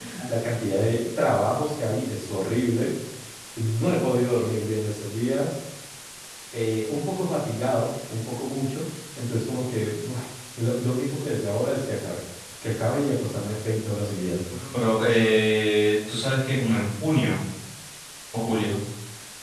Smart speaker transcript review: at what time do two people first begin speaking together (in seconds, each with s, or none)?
none